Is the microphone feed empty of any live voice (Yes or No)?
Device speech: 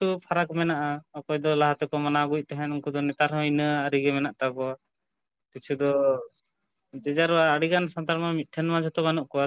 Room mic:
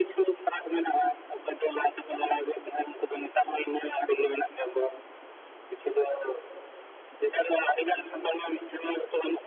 Yes